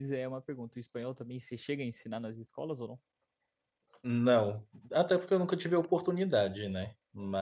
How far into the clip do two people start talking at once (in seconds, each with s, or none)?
none